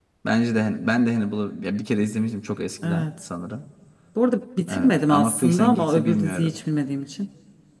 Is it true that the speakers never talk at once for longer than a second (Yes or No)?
No